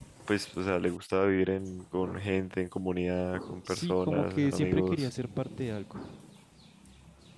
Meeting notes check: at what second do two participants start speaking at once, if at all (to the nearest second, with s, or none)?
4 s